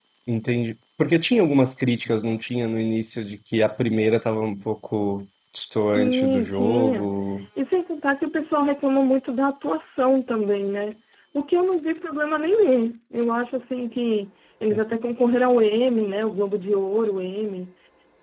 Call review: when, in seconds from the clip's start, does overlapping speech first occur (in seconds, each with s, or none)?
5.8 s